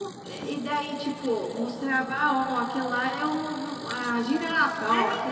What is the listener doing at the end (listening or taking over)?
taking over